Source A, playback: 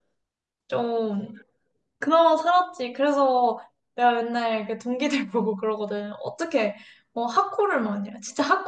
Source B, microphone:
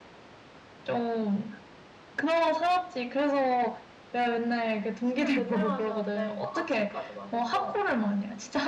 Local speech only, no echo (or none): 술을 맨날 마셨는데 막 아침까지 마셨어.